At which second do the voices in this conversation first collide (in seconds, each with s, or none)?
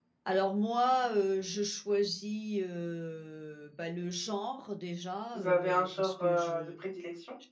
5.3 s